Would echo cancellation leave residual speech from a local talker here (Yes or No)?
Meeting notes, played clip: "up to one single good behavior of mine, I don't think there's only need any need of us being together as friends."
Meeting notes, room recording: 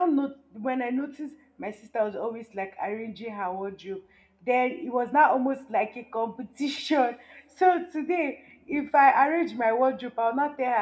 Yes